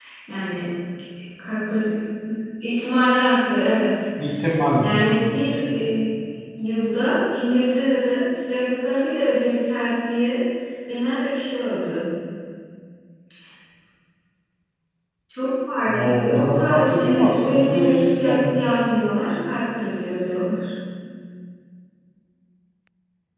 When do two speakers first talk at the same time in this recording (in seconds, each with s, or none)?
15.9 s